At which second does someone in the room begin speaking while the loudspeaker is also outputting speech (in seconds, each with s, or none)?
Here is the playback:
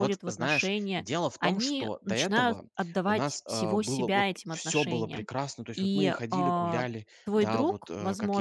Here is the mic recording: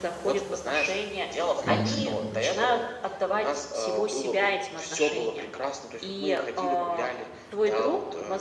1.6 s